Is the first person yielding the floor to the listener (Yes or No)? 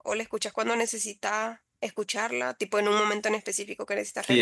Yes